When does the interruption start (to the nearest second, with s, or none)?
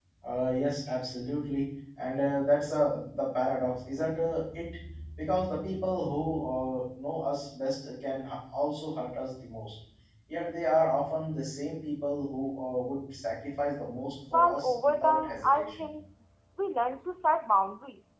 14 s